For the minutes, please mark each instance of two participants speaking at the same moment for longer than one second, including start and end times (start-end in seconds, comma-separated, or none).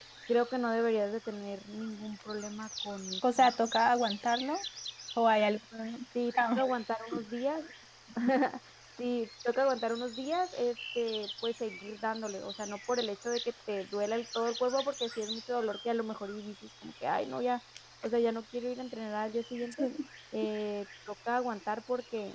none